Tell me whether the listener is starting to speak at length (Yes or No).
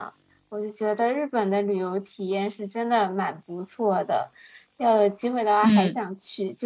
No